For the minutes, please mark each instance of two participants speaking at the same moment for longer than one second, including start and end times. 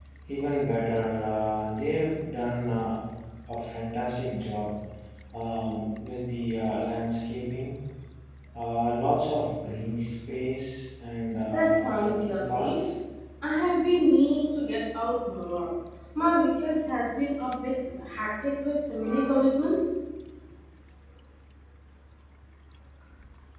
11.4-12.8

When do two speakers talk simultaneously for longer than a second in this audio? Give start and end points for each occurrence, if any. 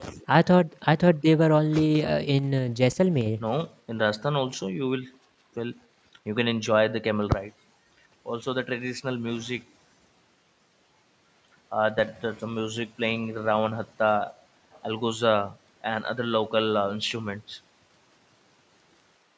none

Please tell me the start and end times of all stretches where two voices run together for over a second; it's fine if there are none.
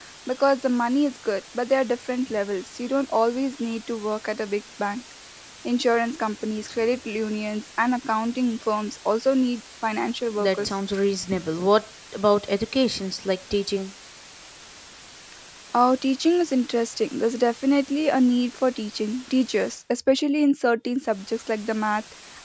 none

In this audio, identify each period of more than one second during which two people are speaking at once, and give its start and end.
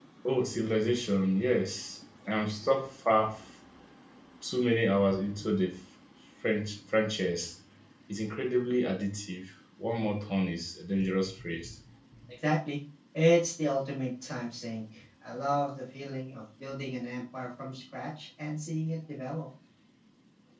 none

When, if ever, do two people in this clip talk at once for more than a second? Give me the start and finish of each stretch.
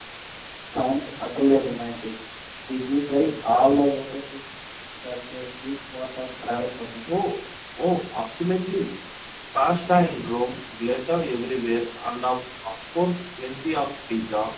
none

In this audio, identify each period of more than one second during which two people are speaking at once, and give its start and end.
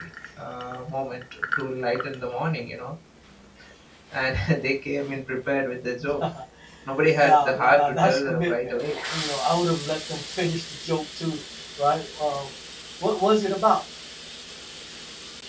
7.2-8.8

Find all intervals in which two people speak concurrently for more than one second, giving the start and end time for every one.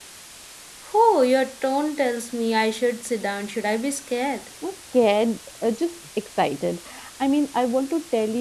none

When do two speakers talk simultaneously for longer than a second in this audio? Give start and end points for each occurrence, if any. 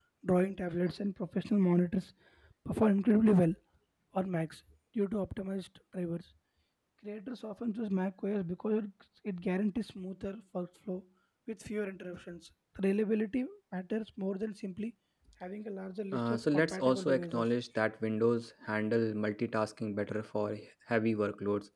16.1-17.4

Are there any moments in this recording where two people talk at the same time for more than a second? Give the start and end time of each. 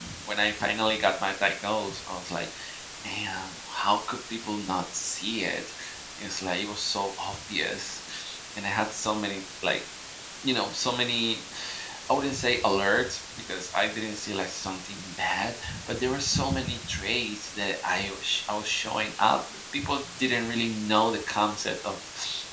none

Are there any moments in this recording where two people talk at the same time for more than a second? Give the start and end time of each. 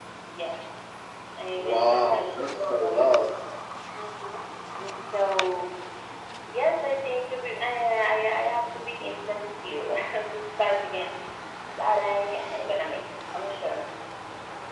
1.6-3.0

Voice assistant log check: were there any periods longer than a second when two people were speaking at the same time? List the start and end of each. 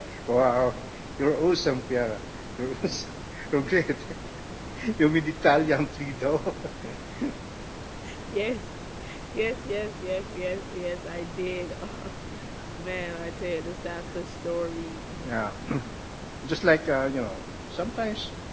none

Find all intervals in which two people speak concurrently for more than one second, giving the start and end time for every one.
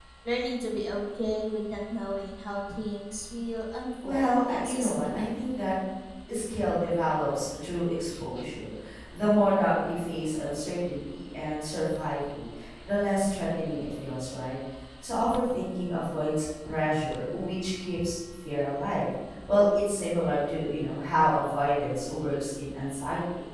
4.0-5.3

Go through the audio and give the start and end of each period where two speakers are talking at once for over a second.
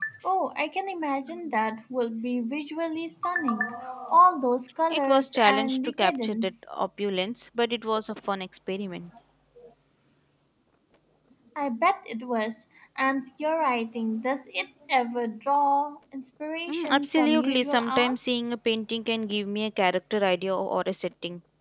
4.9-6.7, 16.7-18.1

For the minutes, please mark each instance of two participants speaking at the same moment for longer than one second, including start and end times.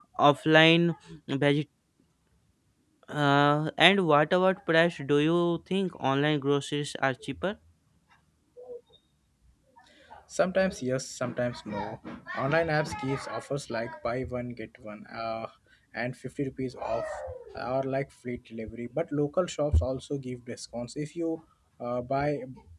none

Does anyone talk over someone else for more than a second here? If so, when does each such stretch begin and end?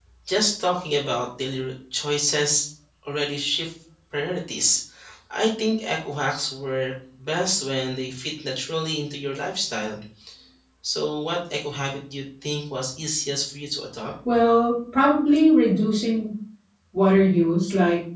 none

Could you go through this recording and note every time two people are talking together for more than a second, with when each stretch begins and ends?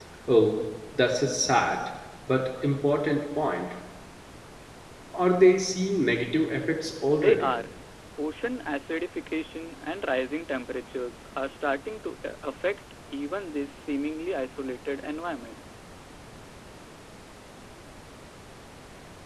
none

